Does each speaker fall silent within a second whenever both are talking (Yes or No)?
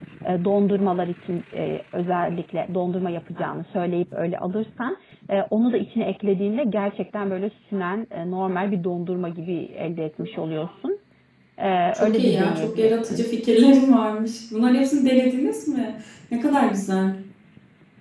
No